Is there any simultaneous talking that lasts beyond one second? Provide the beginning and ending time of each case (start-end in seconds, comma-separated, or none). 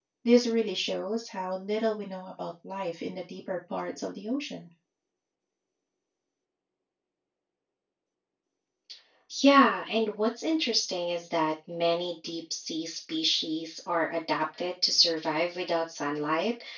none